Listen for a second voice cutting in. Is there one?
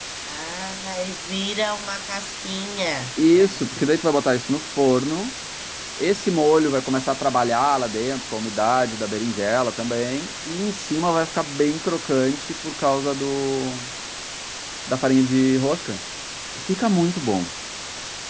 No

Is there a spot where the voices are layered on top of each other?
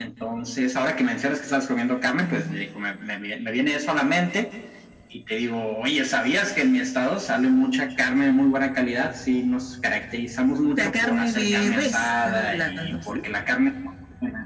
Yes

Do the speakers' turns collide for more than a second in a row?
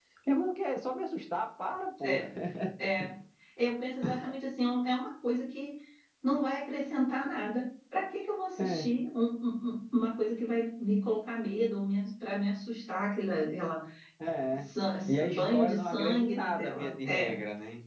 Yes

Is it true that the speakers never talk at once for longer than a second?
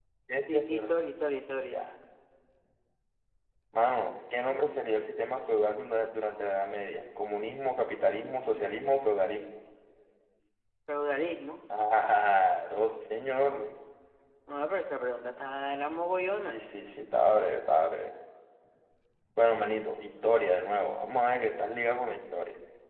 Yes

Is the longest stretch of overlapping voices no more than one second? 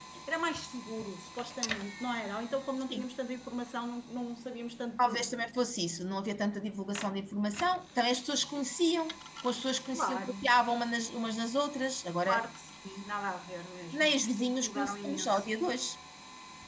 No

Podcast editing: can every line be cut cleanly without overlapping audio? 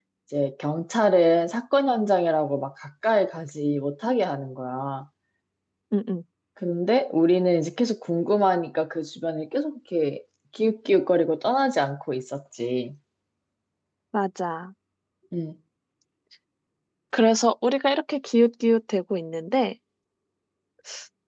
Yes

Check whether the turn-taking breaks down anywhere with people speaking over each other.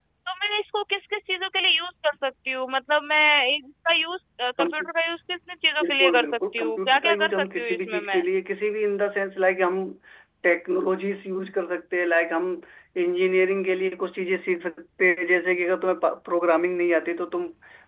Yes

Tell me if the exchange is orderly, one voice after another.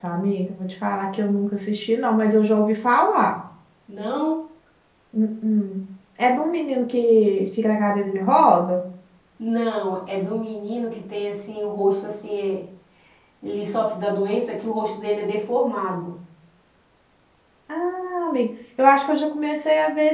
Yes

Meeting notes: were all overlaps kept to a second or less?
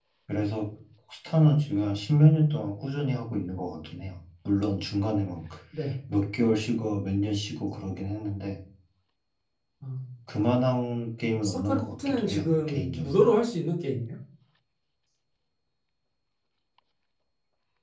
No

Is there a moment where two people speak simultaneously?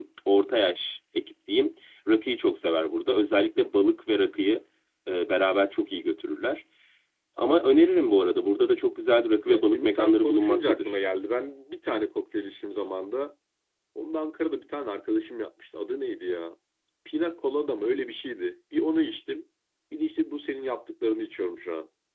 Yes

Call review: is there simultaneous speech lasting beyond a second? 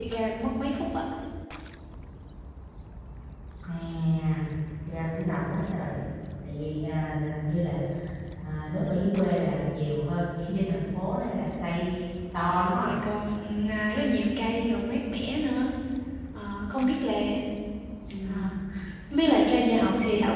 No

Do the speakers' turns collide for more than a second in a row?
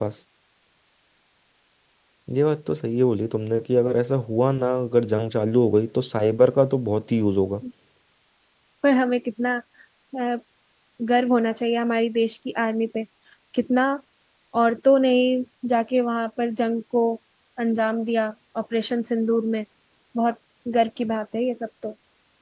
No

